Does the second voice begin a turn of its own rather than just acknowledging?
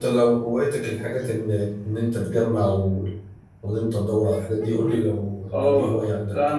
Yes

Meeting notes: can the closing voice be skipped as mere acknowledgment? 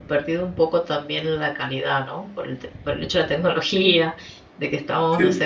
Yes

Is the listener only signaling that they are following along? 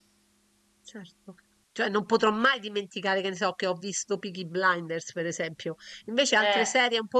Yes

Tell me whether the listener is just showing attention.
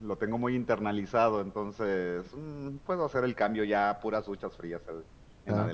No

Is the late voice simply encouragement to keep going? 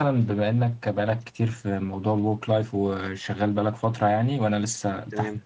No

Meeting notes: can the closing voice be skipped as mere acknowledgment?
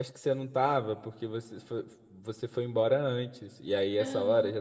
Yes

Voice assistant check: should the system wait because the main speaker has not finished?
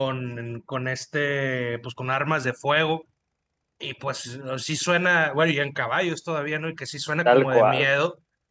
Yes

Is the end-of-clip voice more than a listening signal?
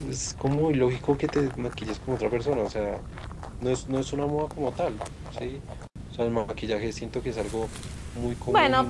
Yes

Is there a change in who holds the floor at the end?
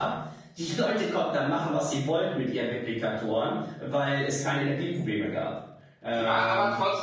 Yes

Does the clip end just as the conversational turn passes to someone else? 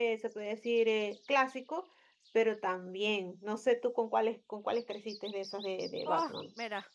Yes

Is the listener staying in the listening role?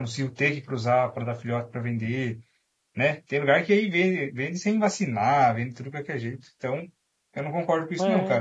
No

